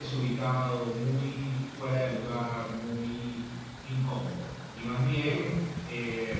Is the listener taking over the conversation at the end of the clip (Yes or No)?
No